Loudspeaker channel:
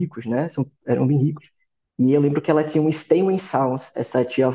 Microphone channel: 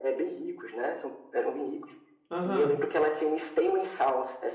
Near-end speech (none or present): present